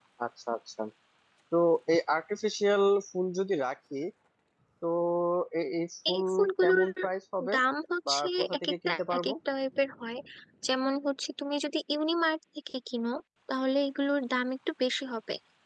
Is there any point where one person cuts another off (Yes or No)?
Yes